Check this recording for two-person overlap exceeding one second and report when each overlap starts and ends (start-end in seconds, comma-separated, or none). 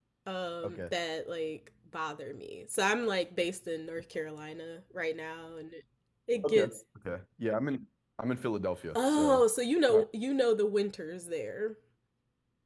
none